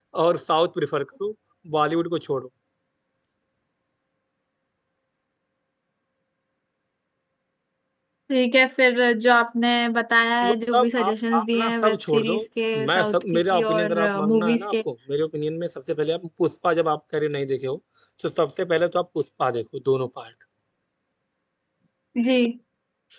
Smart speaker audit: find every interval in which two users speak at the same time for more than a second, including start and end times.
10.4-12.3, 12.9-14.7

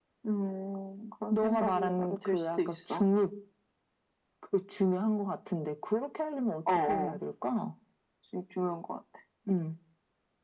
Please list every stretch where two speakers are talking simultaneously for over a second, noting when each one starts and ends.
1.3-3.0

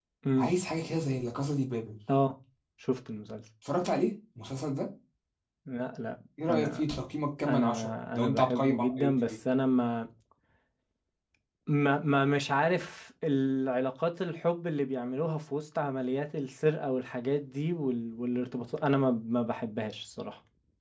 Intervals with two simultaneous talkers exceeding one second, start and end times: 7.5-9.3

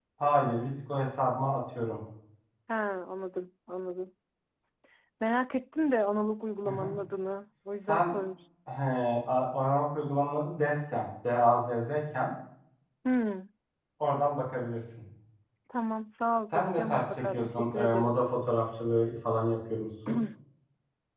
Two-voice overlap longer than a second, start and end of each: 16.5-18.1

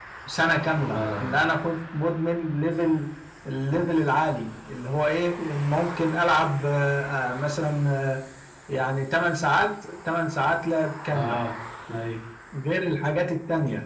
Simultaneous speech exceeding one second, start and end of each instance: none

